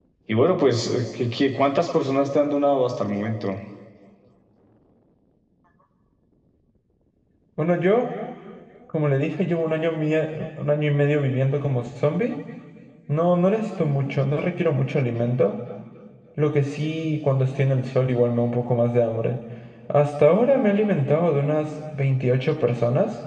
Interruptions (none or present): none